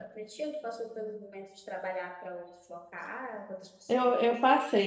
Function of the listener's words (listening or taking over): taking over